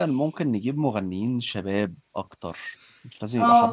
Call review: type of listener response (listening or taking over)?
listening